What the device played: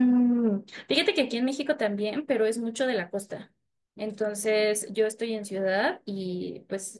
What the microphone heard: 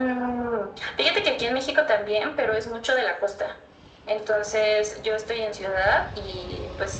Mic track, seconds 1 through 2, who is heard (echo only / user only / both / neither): echo only